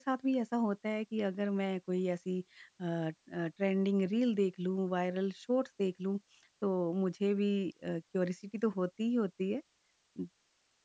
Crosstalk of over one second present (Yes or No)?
No